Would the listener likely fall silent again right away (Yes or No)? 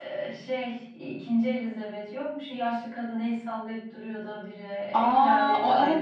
No